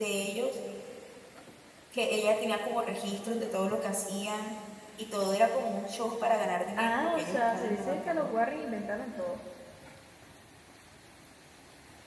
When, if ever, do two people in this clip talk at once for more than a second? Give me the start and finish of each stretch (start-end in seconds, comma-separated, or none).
6.8-8.3